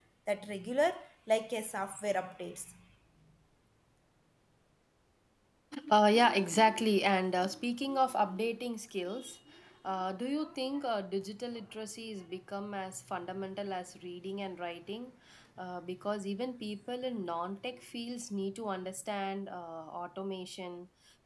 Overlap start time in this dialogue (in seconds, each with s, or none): none